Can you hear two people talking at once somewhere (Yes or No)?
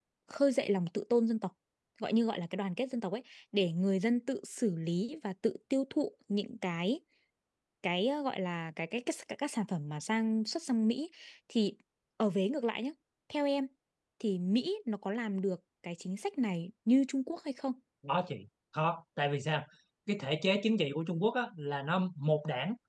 No